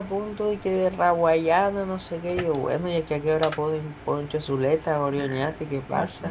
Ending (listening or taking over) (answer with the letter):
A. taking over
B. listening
A